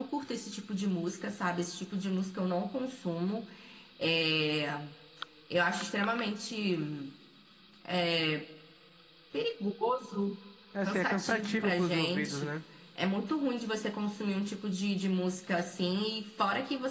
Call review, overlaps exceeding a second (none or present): present